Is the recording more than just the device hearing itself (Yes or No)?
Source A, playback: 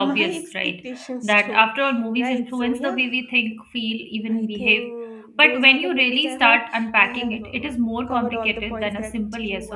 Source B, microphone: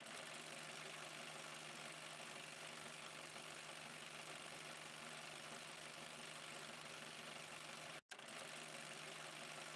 No